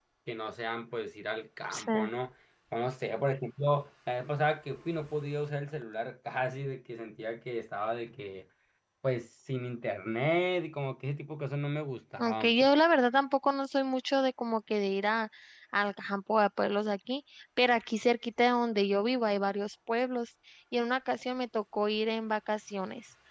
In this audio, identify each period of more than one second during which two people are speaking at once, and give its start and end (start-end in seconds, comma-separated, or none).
none